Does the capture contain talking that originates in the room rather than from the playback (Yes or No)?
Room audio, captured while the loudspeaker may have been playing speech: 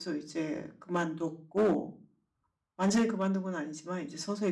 Yes